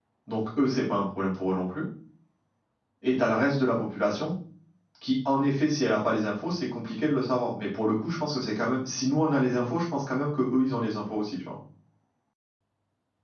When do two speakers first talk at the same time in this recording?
none

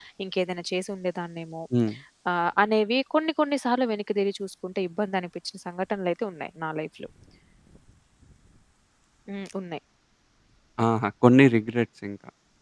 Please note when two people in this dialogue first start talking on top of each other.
none

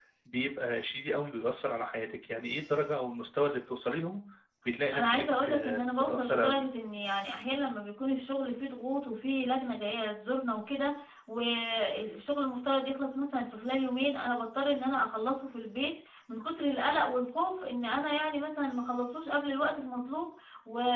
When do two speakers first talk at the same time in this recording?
5 s

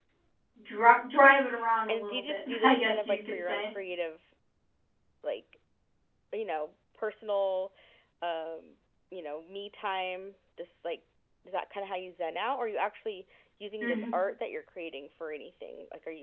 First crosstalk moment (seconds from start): 2 s

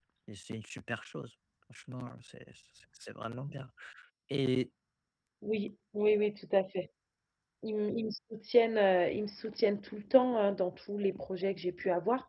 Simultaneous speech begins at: none

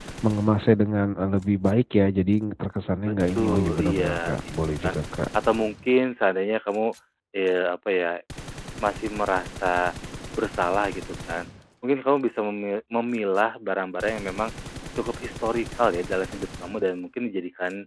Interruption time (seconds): 3 s

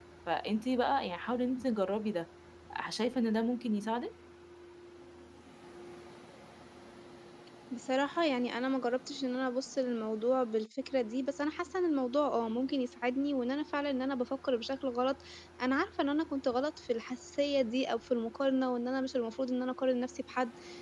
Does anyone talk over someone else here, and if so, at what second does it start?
none

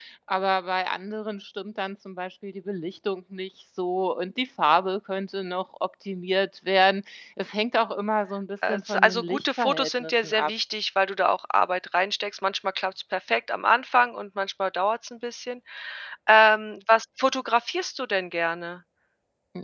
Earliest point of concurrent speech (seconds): 9 s

